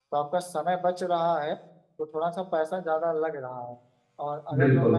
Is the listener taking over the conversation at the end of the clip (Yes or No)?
No